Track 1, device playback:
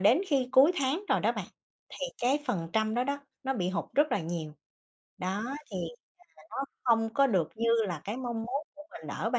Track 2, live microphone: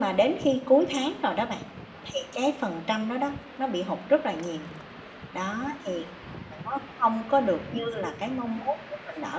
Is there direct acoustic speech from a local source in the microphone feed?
No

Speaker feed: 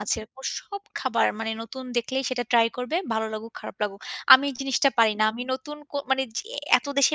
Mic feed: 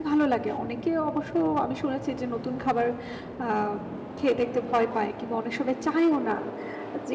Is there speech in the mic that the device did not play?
Yes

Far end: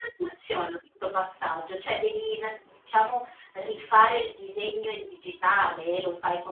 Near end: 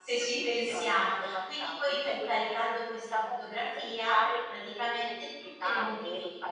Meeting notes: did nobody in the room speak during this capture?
No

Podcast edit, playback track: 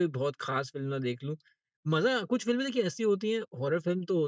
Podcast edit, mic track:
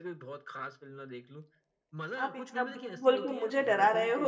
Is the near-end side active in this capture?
Yes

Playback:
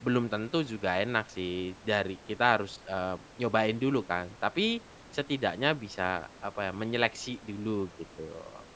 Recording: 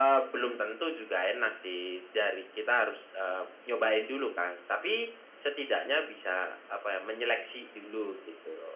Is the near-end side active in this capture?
No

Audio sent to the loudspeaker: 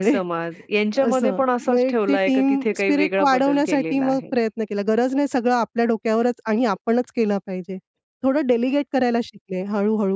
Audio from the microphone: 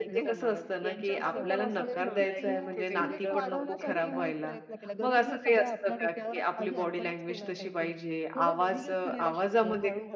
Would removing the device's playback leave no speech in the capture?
No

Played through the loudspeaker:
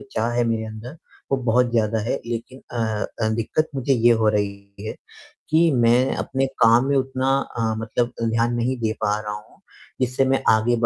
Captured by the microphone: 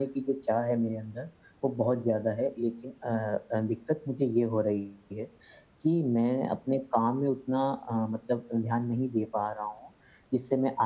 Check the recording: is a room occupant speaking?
No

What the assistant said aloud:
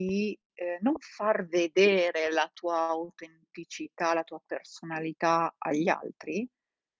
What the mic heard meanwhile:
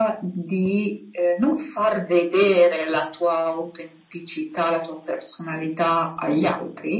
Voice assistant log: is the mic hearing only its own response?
Yes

